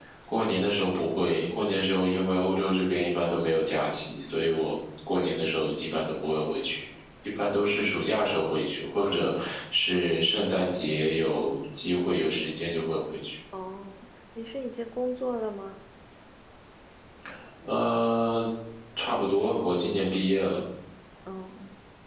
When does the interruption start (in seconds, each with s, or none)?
none